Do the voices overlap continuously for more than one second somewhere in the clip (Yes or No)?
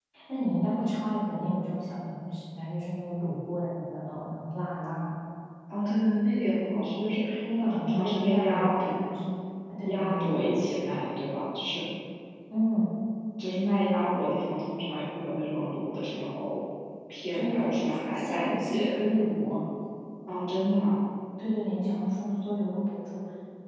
Yes